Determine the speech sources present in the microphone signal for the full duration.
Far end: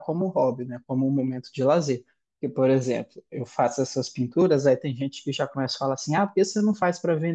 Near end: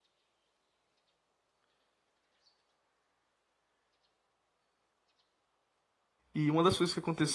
user only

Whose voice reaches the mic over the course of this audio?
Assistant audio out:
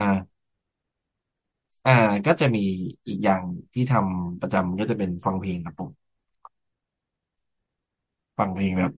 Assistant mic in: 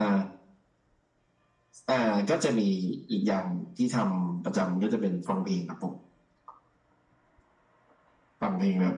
echo only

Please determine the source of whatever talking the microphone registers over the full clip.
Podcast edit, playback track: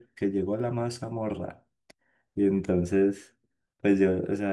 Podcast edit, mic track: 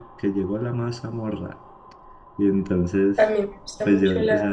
both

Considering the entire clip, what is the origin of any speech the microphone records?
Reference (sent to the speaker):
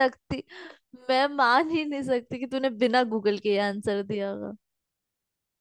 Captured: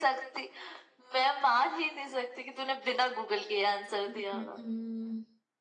both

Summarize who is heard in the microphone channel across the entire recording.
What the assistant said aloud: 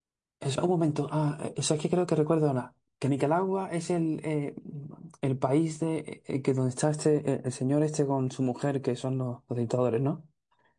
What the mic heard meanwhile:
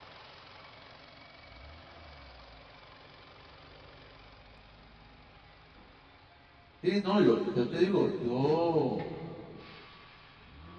user only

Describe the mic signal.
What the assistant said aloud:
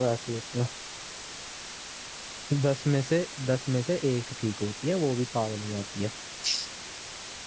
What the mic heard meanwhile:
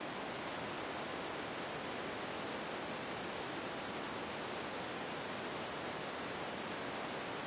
neither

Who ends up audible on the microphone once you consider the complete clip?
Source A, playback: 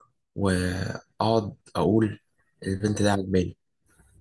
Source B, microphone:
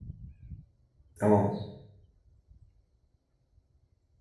user only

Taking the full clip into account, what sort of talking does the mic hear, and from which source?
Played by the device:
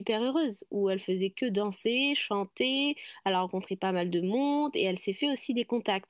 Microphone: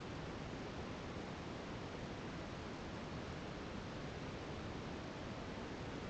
neither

